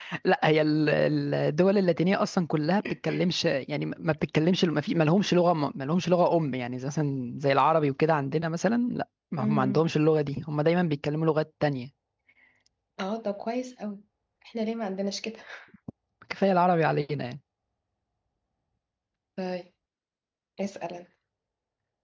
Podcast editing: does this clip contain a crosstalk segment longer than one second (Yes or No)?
No